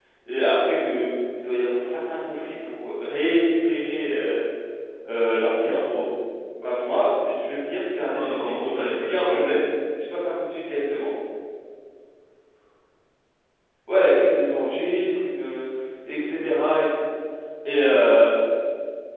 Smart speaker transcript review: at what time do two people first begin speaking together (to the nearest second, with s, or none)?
8 s